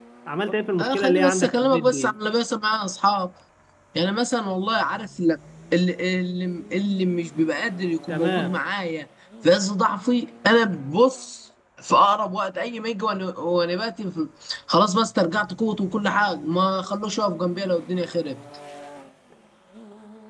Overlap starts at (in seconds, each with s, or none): 0.8 s